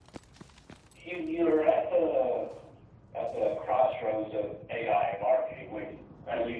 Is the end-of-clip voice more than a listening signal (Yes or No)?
No